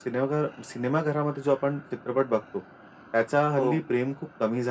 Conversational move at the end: listening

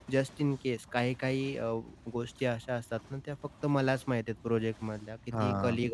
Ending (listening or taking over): listening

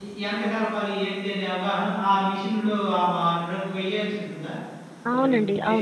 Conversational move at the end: taking over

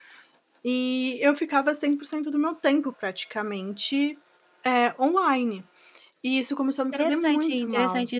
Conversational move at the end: taking over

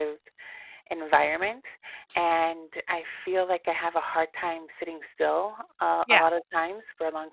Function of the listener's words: listening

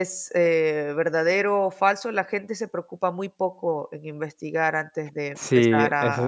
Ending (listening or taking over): taking over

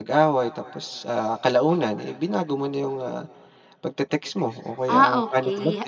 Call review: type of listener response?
taking over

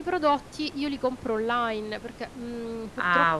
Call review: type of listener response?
taking over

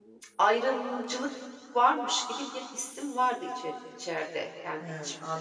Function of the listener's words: taking over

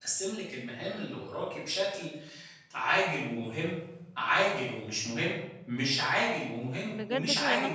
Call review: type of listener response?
taking over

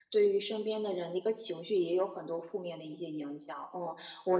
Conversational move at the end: listening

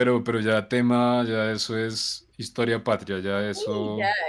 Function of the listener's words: taking over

